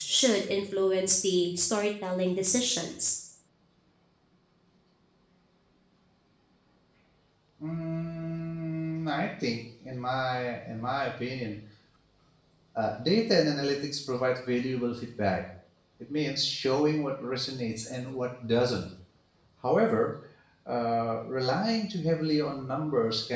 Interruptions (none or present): none